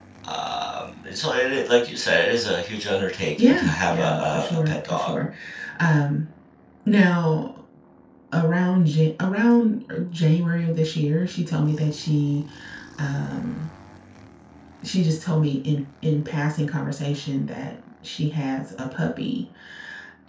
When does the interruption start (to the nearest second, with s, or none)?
3 s